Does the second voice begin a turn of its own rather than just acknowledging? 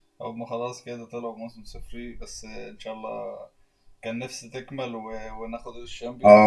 Yes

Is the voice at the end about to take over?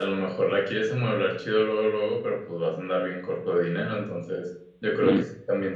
No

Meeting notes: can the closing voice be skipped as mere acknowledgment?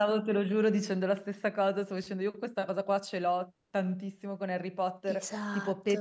Yes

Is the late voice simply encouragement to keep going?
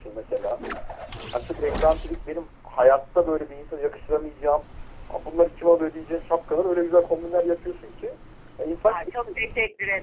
No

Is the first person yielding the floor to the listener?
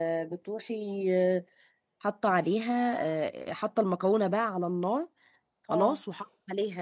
No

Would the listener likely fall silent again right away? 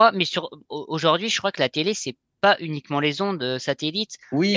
No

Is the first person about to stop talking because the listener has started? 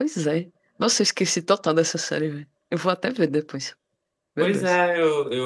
Yes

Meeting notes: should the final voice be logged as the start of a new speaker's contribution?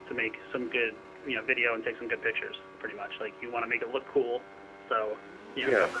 No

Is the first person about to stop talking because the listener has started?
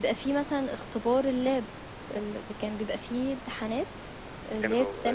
Yes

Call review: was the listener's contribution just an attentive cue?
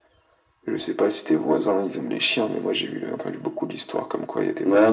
No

